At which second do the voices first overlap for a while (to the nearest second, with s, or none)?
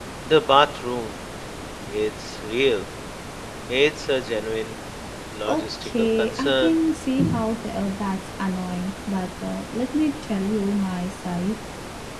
5 s